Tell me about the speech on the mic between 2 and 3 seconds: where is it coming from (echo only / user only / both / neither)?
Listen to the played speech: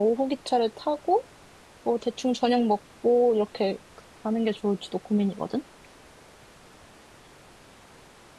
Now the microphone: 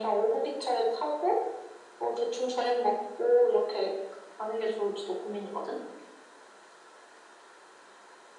echo only